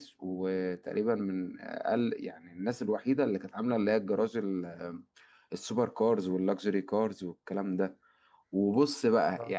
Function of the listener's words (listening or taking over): listening